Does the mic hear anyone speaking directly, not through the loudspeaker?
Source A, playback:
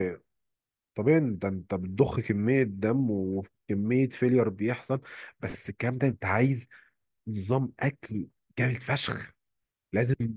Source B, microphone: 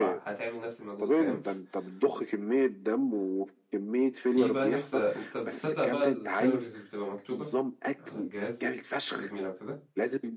Yes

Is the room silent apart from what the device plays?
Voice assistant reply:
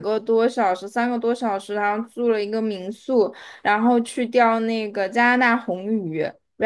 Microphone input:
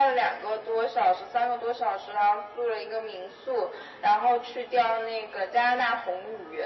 Yes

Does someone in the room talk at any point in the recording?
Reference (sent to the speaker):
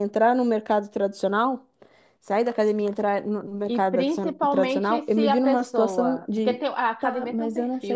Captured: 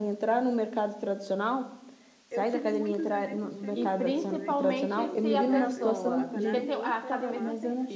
Yes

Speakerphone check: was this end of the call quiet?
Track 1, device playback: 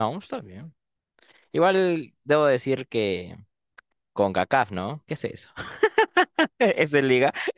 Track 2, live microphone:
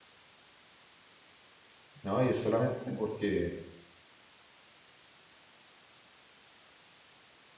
No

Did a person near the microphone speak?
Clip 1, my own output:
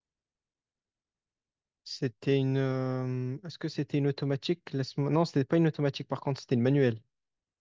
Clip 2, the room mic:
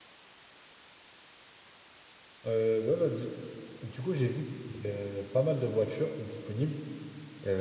Yes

